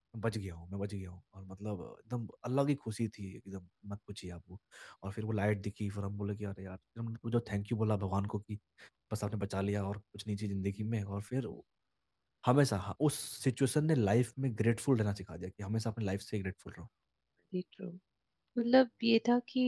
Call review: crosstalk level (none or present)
none